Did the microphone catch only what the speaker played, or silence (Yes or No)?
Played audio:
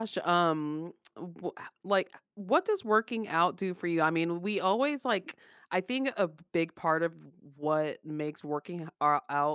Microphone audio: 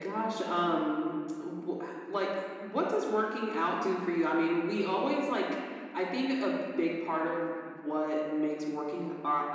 Yes